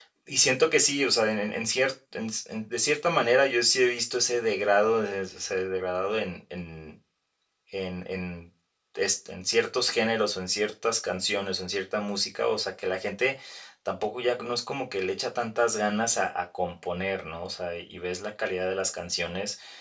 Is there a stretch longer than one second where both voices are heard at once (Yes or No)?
No